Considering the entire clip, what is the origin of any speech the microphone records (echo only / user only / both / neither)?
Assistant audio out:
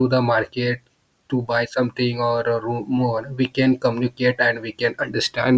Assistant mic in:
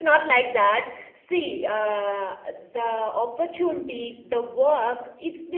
user only